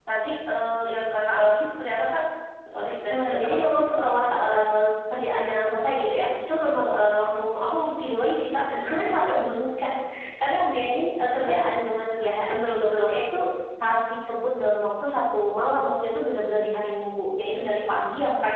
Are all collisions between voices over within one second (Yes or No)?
No